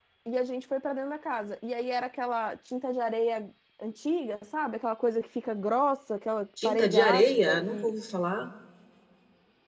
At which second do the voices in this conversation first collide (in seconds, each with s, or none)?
6.6 s